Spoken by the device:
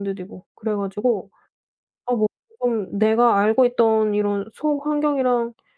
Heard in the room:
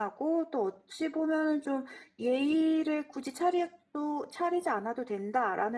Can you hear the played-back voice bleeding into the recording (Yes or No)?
No